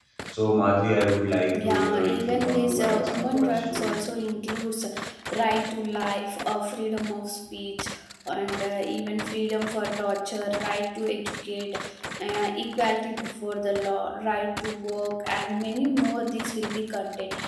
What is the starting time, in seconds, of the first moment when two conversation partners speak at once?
1.5 s

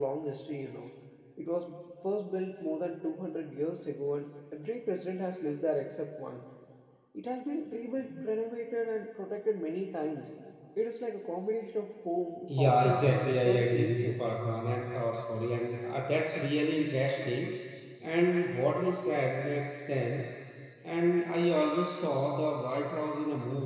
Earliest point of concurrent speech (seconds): 12.5 s

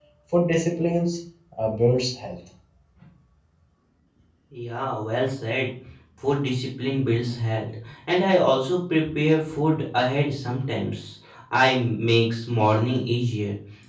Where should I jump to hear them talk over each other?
none

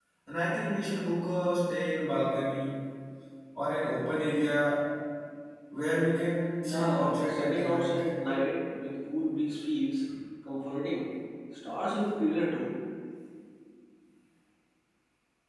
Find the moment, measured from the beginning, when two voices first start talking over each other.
6.6 s

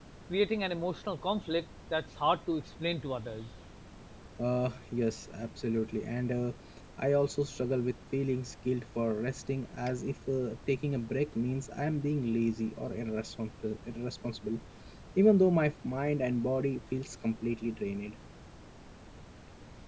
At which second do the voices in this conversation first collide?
none

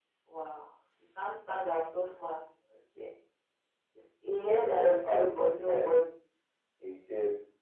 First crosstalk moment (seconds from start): 4.6 s

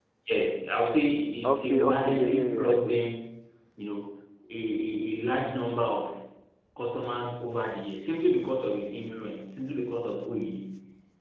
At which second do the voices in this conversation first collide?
1.4 s

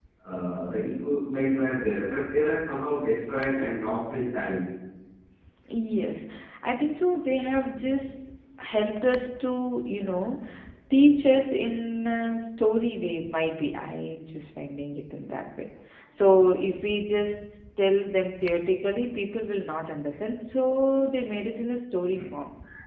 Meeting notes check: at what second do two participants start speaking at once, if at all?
none

